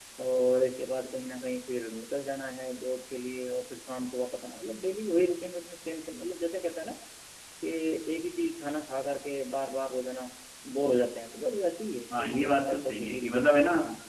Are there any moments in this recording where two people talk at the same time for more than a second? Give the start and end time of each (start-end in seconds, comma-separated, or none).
12.2-13.6